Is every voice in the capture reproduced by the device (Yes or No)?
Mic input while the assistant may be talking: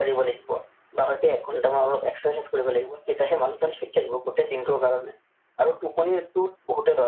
Yes